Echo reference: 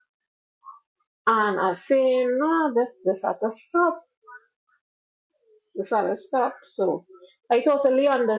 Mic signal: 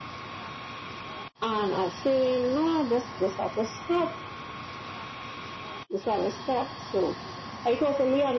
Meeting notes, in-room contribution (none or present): none